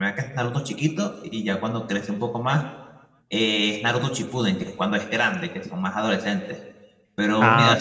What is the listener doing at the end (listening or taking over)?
taking over